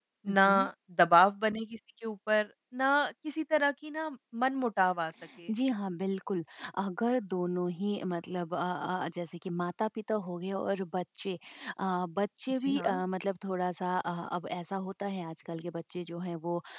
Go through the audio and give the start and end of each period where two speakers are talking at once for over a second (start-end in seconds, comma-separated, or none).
none